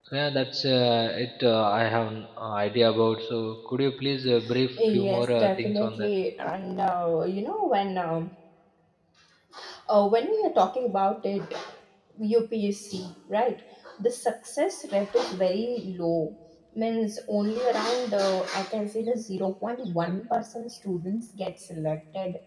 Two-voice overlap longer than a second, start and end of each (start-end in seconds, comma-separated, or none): 4.8-6.1